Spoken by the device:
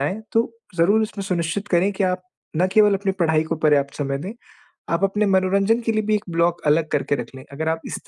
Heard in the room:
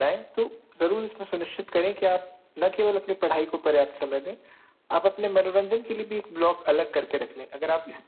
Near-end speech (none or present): none